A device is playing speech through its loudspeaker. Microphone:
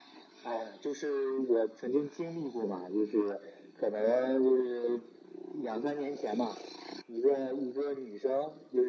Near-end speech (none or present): none